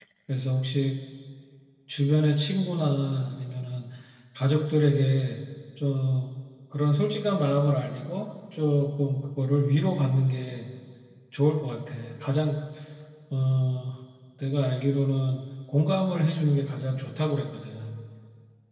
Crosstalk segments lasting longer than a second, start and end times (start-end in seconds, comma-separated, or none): none